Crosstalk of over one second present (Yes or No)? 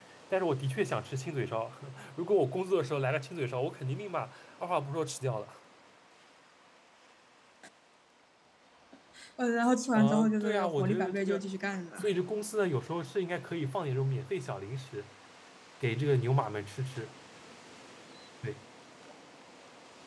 Yes